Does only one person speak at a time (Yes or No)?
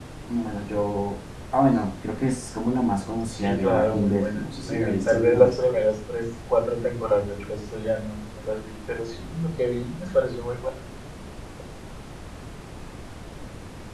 No